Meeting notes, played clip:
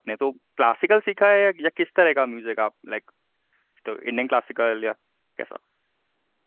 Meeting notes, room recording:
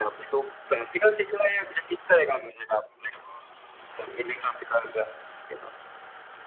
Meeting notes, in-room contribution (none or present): none